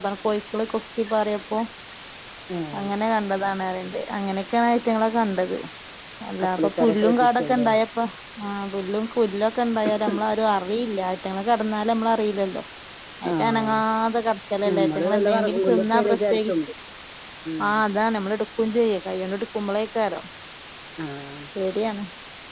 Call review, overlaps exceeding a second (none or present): present